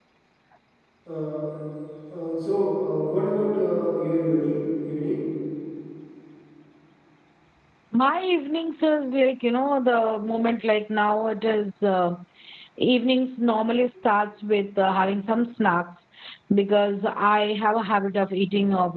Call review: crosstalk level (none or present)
none